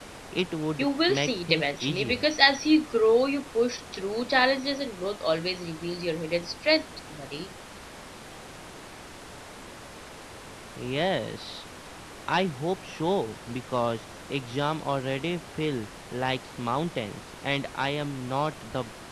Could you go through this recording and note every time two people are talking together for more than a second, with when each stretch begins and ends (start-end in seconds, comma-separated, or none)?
0.8-2.2